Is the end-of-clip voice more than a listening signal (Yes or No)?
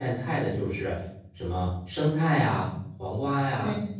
No